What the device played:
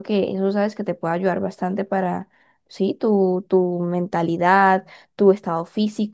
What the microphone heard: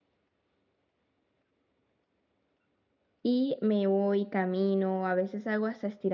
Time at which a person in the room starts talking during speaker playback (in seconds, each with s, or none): 3.2 s